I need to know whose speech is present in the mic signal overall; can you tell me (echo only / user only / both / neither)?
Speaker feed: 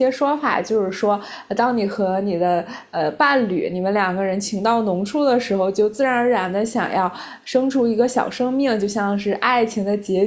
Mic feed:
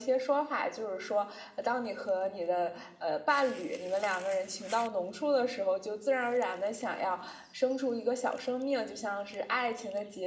echo only